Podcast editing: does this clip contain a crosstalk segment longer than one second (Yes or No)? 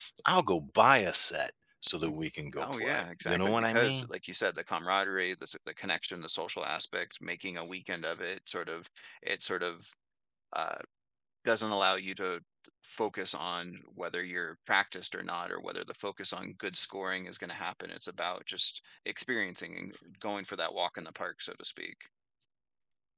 Yes